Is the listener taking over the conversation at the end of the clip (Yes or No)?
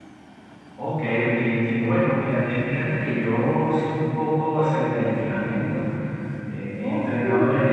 No